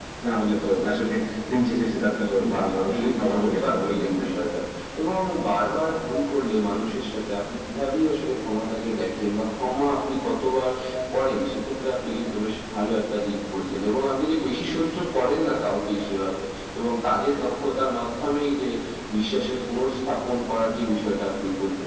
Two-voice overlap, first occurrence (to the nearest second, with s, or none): 2 s